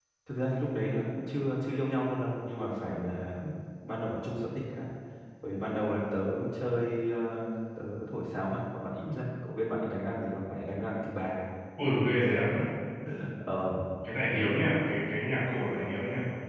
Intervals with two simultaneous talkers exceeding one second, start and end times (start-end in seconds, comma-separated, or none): none